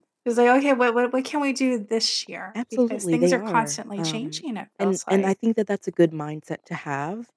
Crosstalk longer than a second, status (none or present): present